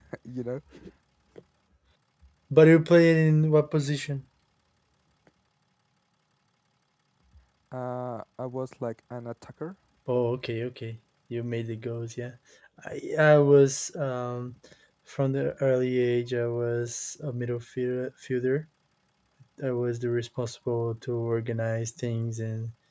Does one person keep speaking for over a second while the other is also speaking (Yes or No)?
No